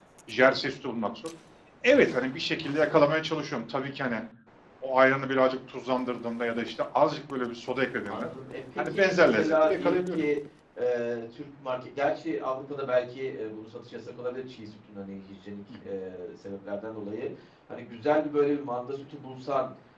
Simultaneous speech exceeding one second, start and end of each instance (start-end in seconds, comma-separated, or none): 8.9-10.3